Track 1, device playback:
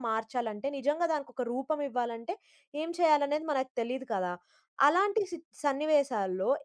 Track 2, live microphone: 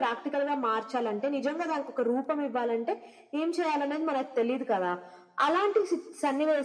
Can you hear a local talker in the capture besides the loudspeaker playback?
No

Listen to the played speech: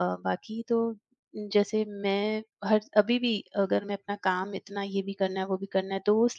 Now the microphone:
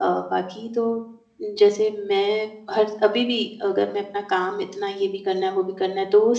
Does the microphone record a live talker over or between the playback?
No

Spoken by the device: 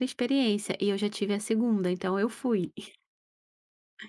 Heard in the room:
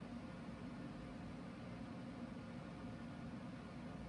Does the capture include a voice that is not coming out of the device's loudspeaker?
No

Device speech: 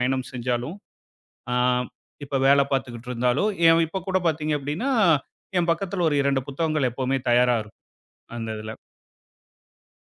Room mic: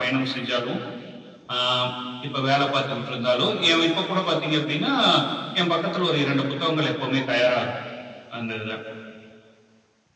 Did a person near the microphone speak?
No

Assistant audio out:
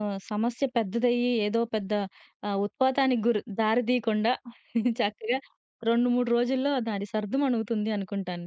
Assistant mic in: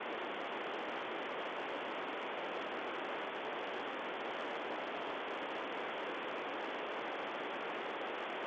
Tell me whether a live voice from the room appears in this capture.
No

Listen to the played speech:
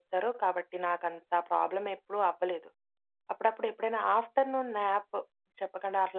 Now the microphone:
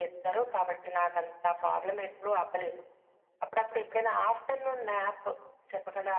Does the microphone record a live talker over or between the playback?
No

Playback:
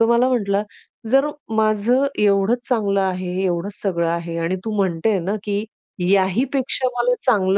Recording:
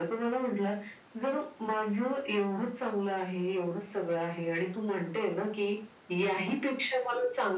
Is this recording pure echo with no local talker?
Yes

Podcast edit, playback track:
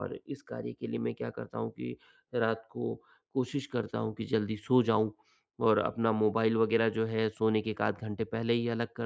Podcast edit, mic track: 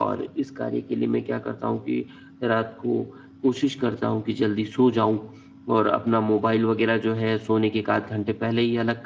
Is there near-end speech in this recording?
No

